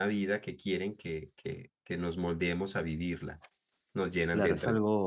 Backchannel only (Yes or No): No